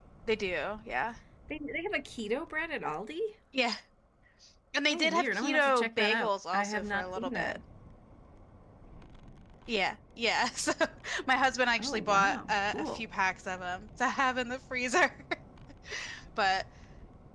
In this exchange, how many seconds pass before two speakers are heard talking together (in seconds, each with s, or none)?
4.9 s